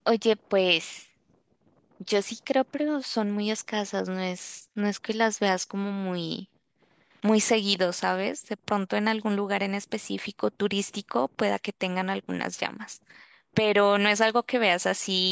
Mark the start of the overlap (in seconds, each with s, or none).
none